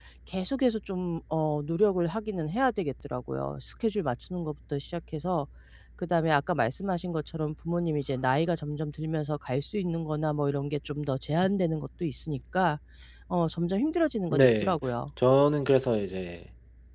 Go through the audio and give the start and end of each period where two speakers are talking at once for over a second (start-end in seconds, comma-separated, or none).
none